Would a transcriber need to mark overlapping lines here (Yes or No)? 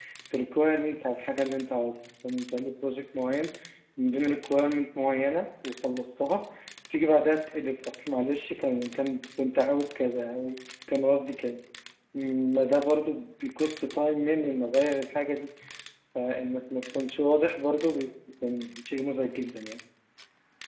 No